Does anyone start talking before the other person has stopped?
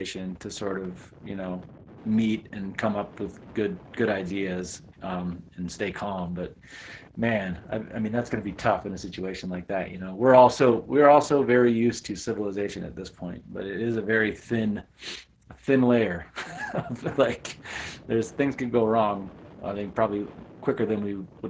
No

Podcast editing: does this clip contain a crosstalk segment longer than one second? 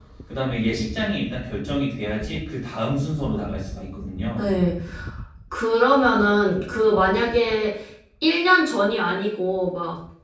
No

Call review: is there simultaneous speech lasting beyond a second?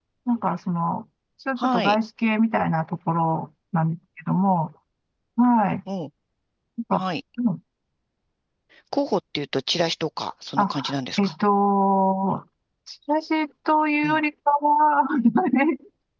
No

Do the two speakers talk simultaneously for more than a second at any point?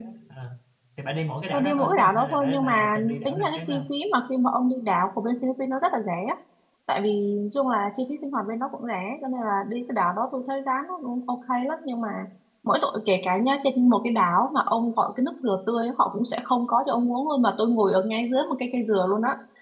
Yes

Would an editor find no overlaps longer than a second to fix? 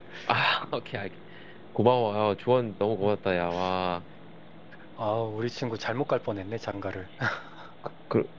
Yes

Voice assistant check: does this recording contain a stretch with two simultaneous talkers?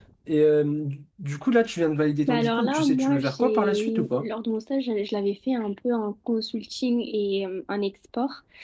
Yes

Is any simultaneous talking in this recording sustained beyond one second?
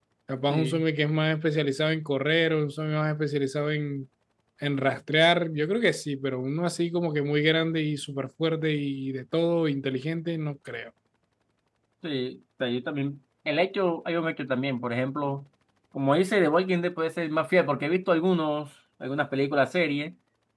No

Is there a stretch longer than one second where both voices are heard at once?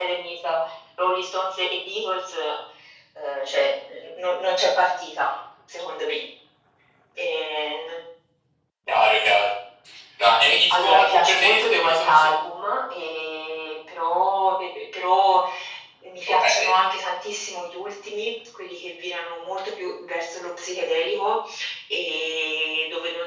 Yes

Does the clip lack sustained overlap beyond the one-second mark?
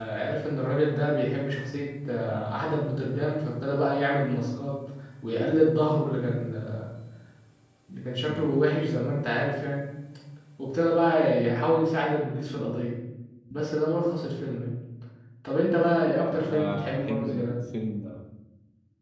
No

